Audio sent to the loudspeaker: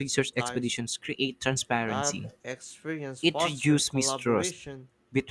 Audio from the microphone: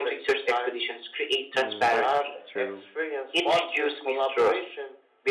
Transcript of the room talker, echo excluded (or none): Mm, that's true.